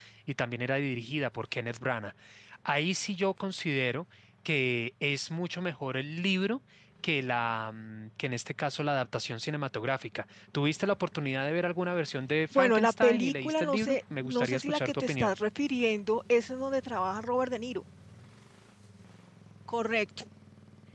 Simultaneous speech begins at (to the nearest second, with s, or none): 13 s